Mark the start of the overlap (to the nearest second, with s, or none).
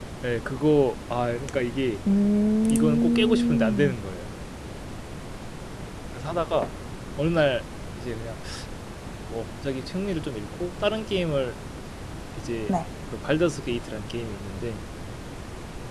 3 s